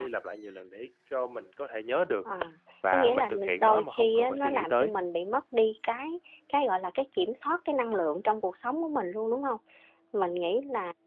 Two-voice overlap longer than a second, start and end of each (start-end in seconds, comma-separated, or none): 2.9-4.9